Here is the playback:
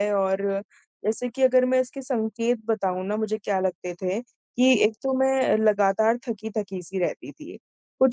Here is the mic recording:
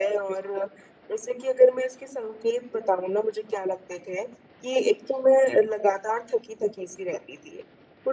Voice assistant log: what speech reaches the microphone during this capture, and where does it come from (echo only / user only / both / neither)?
echo only